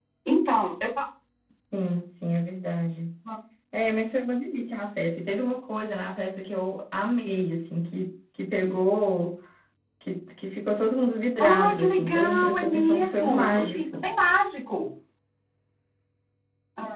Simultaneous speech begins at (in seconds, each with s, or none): 11.4 s